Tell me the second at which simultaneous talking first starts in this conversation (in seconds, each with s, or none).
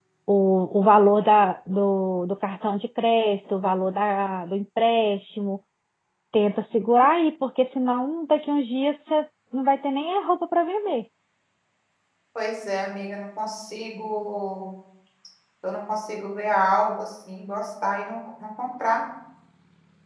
none